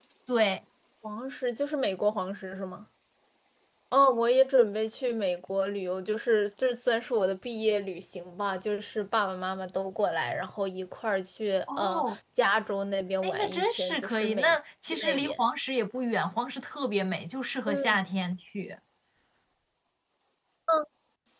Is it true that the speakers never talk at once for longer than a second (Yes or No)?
No